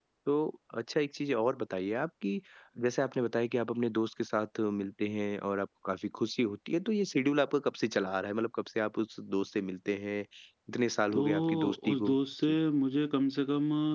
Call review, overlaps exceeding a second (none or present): present